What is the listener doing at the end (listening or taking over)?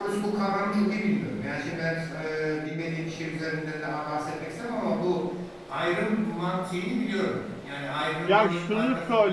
taking over